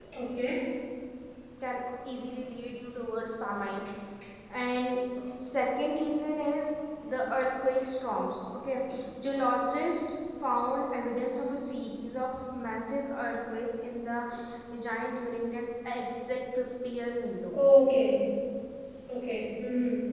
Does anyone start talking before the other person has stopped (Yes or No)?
No